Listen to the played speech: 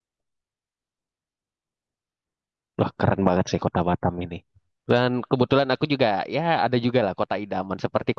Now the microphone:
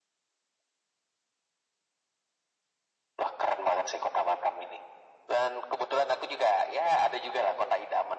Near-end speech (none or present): none